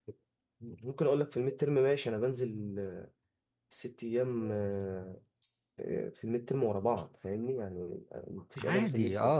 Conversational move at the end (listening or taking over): taking over